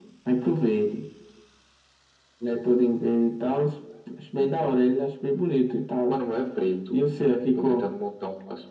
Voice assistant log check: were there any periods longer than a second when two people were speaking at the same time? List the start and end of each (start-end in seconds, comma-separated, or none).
none